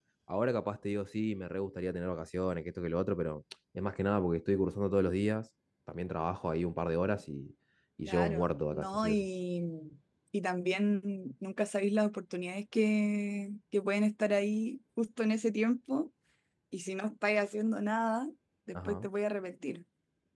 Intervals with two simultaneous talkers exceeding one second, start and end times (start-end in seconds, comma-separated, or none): 8.1-9.3